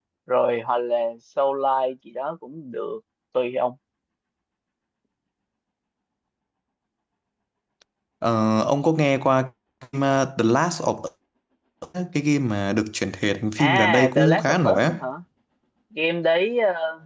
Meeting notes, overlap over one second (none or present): present